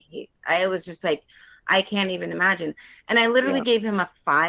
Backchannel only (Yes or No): Yes